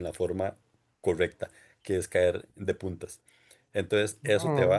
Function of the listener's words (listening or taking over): listening